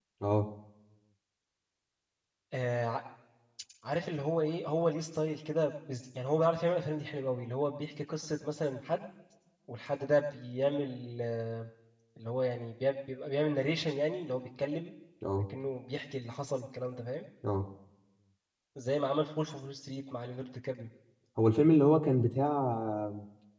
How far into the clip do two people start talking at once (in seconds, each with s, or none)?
none